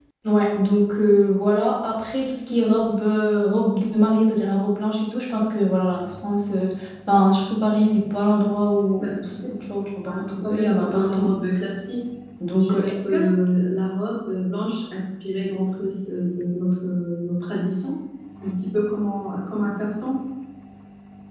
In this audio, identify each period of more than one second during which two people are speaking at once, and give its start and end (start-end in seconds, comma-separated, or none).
10.1-11.3